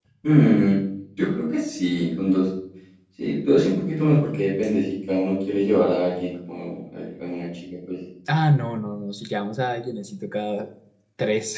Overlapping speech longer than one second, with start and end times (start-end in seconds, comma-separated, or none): none